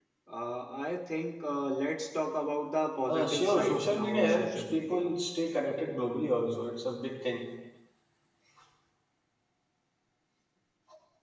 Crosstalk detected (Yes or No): Yes